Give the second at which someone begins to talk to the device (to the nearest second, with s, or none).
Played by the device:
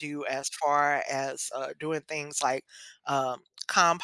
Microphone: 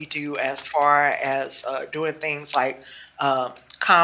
none